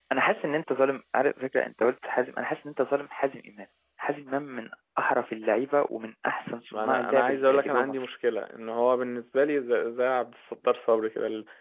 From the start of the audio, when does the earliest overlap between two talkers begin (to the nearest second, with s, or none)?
7 s